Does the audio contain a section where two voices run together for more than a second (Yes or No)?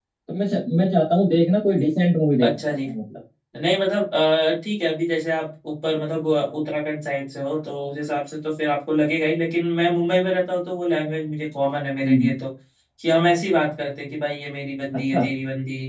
No